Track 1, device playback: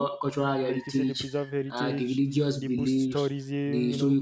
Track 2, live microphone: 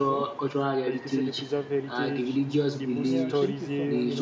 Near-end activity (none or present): present